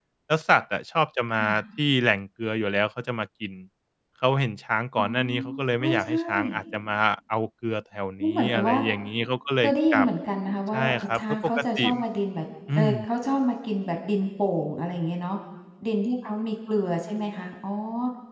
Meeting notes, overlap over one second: present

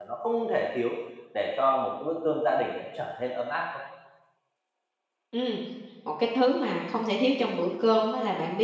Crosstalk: none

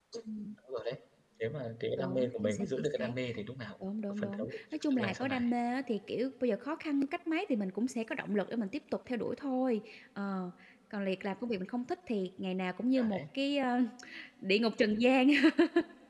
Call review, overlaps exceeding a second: present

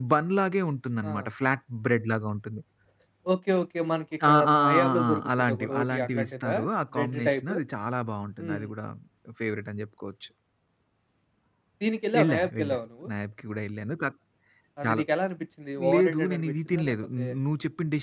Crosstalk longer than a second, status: present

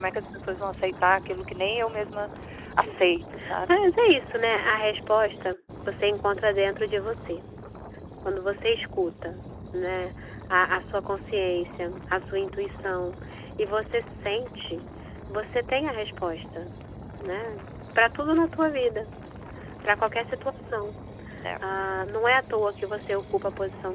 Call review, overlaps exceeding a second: none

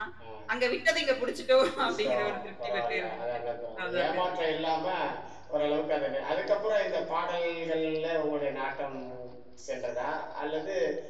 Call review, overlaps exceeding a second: present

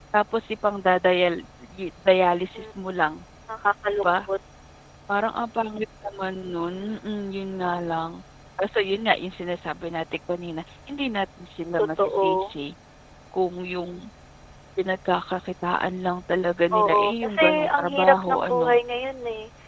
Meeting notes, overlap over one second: present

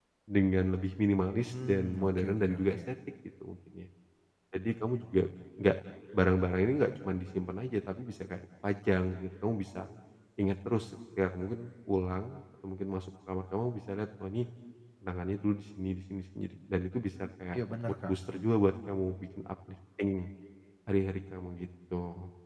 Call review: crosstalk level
present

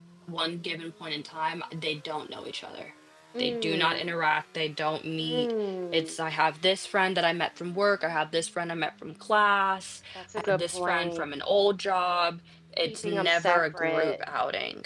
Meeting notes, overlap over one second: present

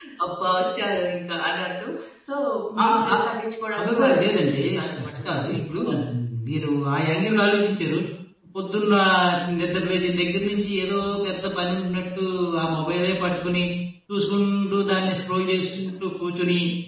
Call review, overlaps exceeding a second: present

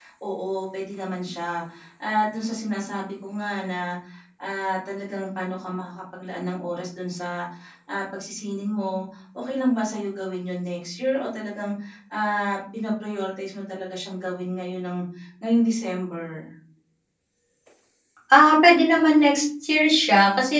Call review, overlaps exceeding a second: none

